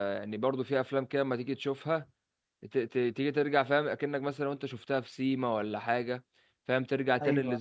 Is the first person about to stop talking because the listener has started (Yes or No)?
No